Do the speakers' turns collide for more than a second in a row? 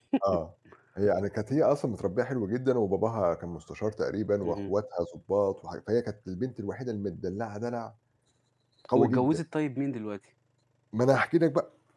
No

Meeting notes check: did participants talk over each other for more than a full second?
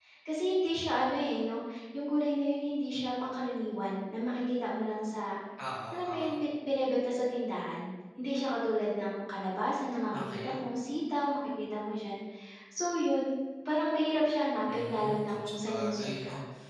Yes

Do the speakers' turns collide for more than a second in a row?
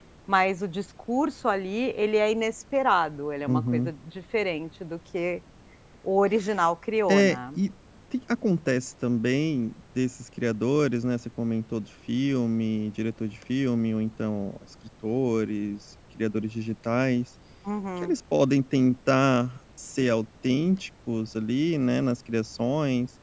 No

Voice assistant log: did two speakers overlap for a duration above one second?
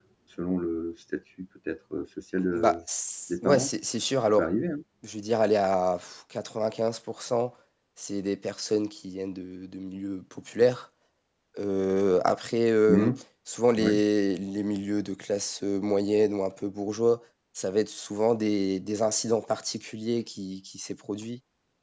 No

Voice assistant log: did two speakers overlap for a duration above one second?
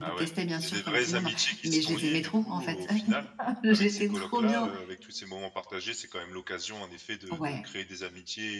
Yes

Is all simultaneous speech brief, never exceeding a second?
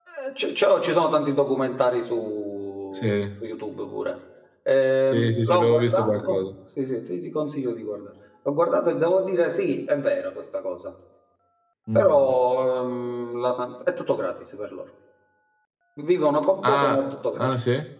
No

